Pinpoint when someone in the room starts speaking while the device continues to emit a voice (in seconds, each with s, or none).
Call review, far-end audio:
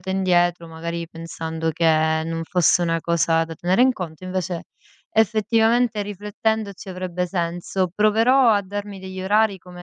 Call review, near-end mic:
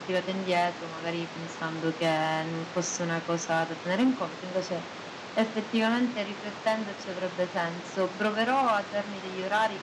none